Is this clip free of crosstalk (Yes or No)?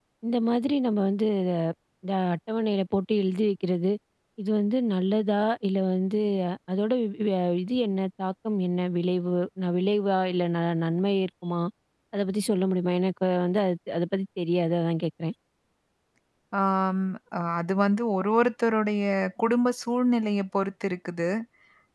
Yes